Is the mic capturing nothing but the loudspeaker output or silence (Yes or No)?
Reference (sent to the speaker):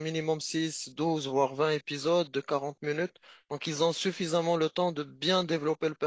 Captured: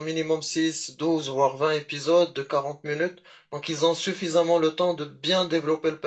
Yes